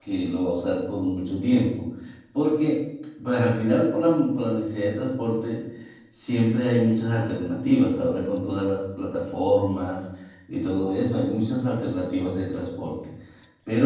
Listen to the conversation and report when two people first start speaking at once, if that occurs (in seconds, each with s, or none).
none